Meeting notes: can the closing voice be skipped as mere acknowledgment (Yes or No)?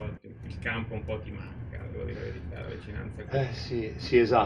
No